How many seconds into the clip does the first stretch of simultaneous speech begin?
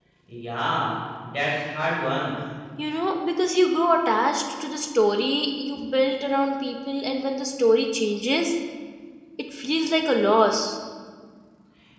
none

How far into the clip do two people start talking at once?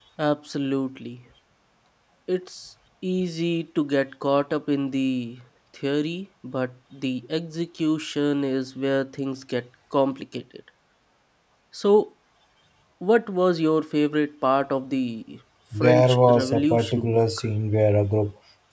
15.7 s

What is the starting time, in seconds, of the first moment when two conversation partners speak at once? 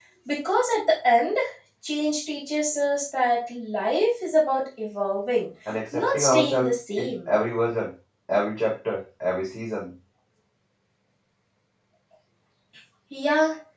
5.9 s

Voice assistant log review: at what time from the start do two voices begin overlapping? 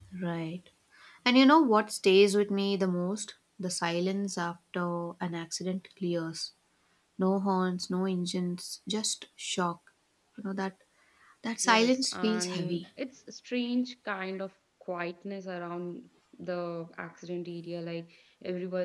11.6 s

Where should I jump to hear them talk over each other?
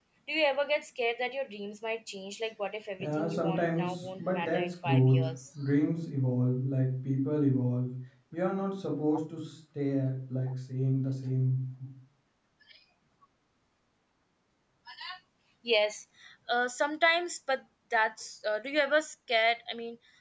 3.0 s

